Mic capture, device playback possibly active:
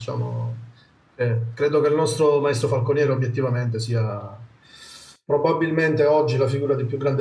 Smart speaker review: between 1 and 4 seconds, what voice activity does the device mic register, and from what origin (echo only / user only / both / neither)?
user only